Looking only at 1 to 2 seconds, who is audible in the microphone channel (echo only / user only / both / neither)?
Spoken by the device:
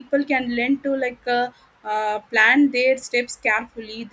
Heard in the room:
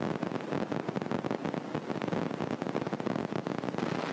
neither